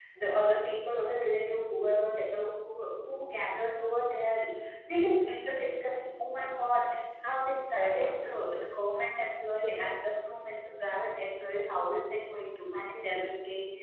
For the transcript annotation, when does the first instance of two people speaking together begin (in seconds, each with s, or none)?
none